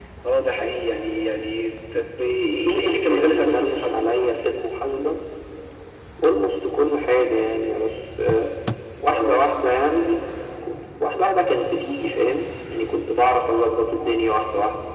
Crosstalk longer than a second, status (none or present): present